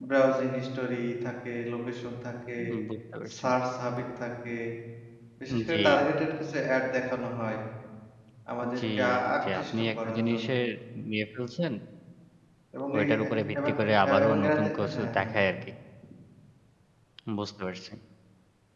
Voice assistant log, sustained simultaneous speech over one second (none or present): present